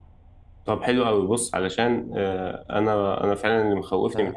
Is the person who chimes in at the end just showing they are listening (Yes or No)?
Yes